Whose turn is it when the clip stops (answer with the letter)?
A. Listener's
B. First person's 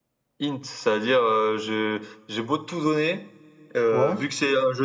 B